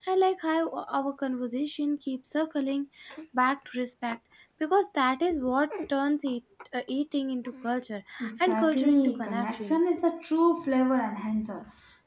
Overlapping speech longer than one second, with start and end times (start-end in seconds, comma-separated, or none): 8.4-9.9